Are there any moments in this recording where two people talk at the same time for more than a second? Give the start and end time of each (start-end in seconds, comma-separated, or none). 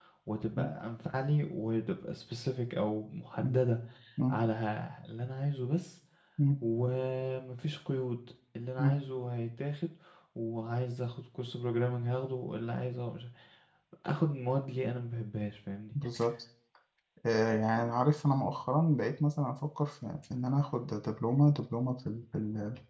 none